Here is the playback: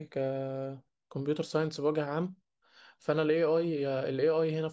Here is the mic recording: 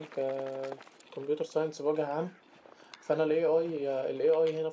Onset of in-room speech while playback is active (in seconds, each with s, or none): none